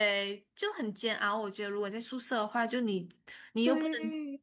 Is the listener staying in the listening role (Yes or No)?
Yes